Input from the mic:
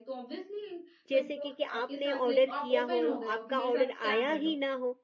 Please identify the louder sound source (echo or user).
user